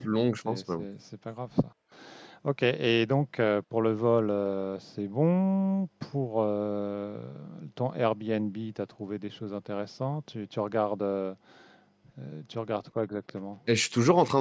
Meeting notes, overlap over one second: none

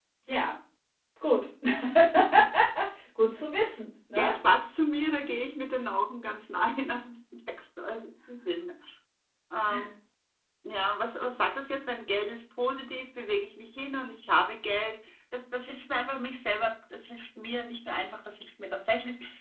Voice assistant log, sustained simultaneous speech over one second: none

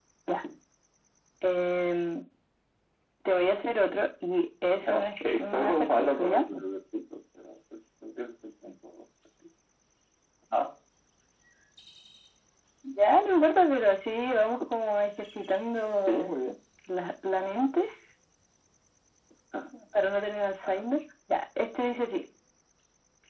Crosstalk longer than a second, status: present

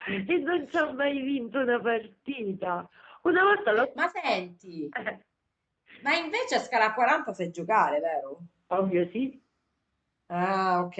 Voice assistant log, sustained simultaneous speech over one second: none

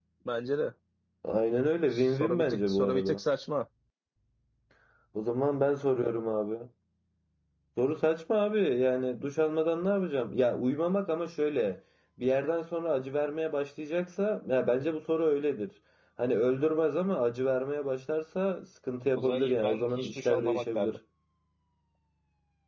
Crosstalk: present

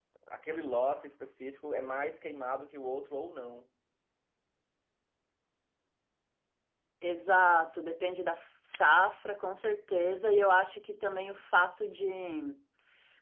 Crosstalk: none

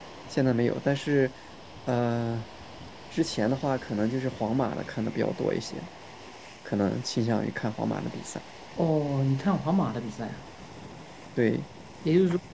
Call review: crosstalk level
none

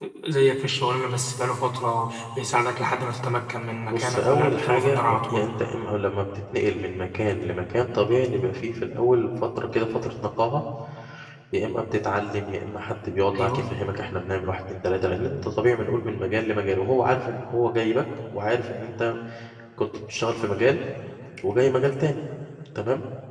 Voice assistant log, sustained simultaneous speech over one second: present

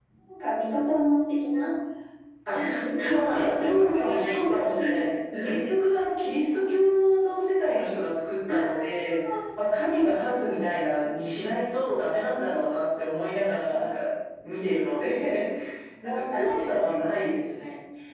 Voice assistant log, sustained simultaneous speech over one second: present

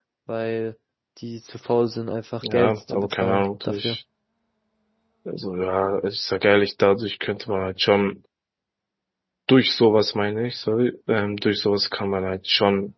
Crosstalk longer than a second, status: present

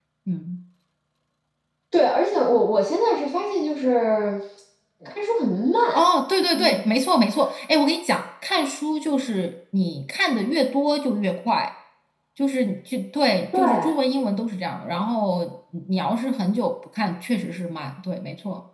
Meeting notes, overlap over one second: none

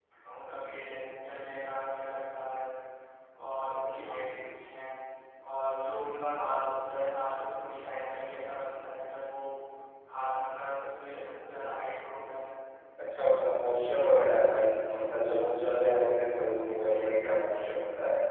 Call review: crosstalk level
none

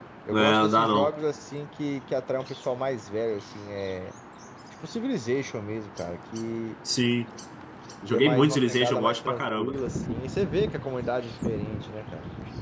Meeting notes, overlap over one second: present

